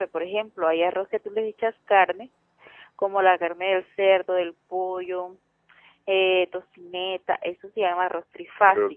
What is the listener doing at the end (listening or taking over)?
taking over